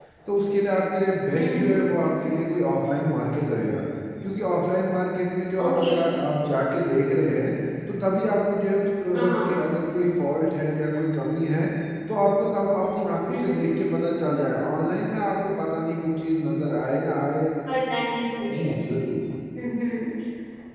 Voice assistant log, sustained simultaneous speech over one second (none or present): none